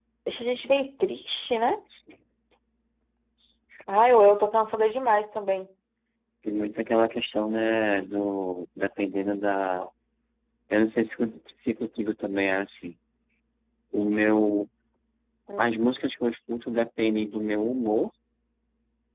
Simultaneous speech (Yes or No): No